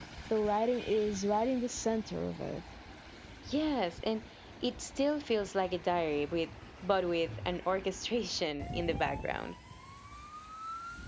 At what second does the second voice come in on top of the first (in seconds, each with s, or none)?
none